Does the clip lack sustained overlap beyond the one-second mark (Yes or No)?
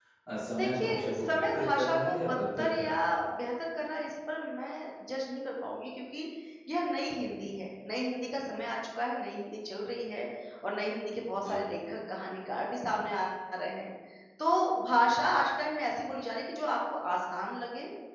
No